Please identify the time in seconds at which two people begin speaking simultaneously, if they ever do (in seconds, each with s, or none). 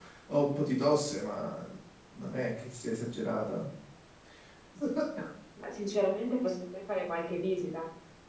none